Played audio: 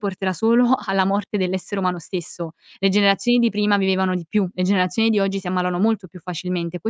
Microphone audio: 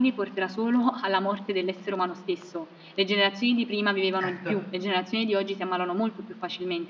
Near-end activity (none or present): present